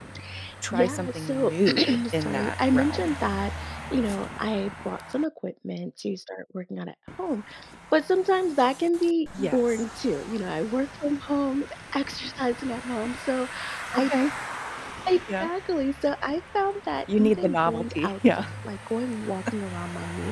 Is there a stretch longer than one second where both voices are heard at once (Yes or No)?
Yes